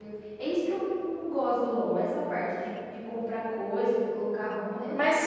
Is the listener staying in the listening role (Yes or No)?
No